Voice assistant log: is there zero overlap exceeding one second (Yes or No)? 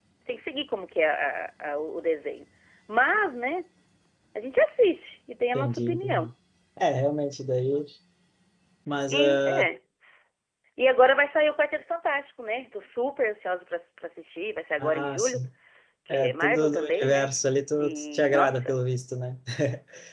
No